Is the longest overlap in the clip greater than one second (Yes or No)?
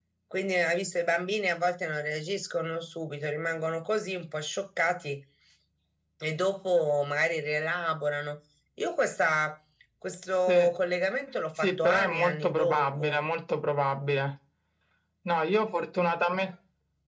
Yes